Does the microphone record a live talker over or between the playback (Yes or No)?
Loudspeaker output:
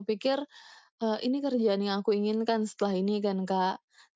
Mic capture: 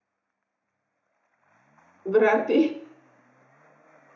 Yes